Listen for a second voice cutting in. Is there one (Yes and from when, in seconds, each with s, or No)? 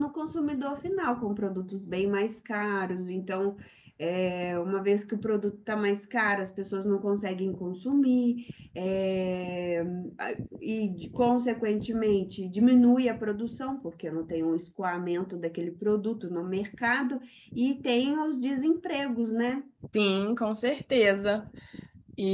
No